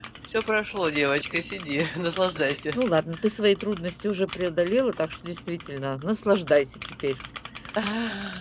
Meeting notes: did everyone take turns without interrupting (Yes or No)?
Yes